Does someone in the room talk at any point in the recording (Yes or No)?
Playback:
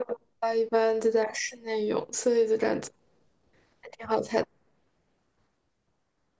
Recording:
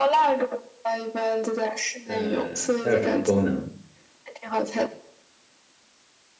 Yes